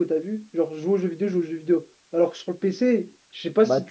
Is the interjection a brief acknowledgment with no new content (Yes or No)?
Yes